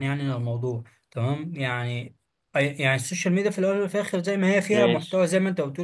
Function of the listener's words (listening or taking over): listening